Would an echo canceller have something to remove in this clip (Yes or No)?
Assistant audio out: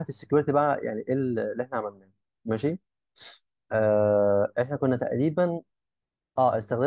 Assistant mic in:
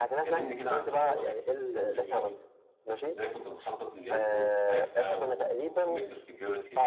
Yes